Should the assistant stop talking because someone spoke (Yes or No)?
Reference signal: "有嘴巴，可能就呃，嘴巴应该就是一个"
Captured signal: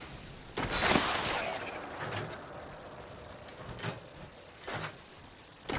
No